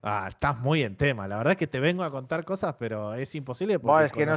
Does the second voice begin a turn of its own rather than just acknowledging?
Yes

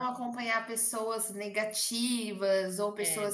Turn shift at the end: No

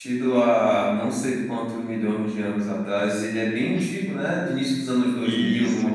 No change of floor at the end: No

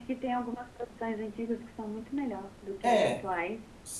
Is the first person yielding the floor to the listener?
Yes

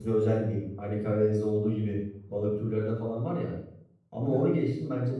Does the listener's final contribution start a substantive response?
No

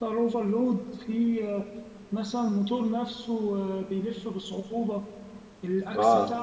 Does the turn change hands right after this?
Yes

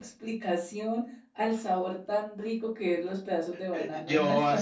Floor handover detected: Yes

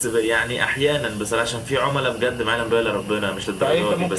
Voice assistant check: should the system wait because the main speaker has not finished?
No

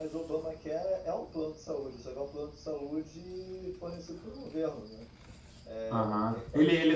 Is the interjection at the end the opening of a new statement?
Yes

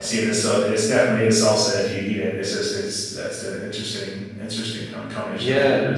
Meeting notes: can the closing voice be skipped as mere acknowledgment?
No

